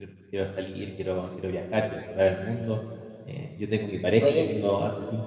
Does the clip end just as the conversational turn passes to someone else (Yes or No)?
No